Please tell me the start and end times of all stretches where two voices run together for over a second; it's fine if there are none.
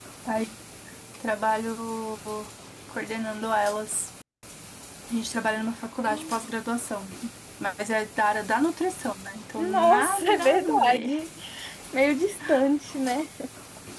9.6-11.1

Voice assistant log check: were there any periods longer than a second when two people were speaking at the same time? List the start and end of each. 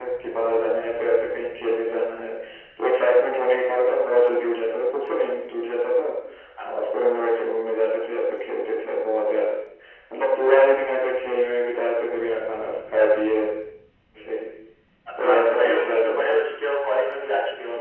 15.2-16.4

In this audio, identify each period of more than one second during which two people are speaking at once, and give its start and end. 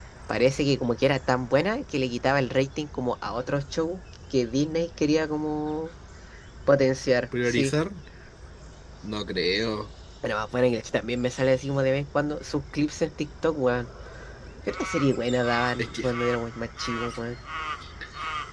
none

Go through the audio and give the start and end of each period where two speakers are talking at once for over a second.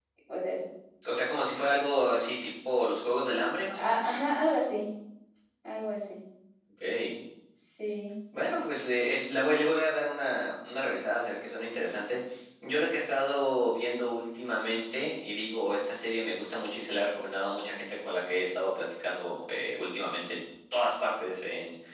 none

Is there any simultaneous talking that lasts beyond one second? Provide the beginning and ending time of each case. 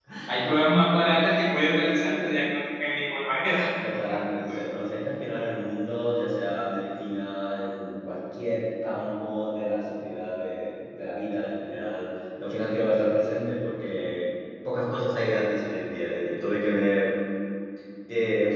none

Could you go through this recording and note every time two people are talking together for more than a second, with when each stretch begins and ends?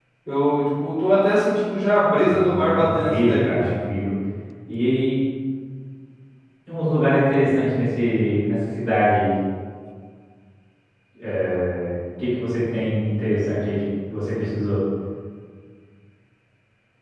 2.2-3.6

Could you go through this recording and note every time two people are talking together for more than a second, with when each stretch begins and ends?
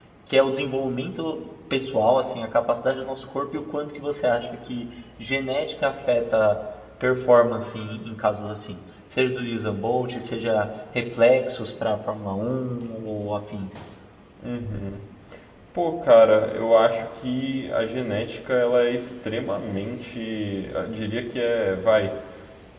none

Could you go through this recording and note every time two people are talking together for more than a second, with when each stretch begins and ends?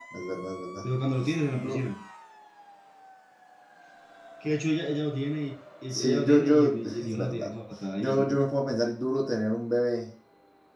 5.9-7.5

